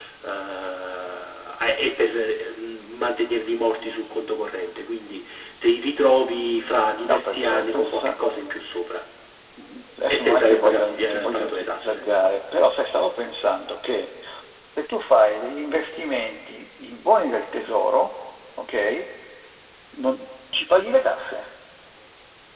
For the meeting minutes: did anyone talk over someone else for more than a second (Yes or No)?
Yes